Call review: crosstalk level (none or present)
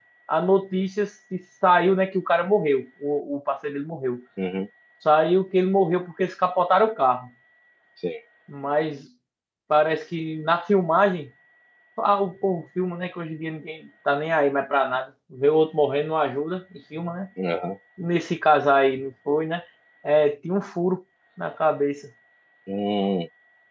none